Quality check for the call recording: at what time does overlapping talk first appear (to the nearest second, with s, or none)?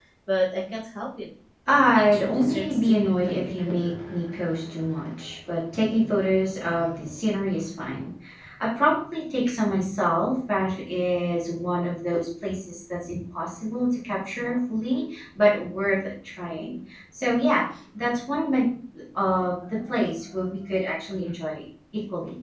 2 s